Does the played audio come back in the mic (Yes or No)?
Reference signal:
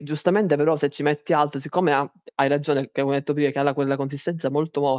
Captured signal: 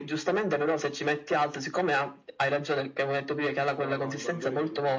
Yes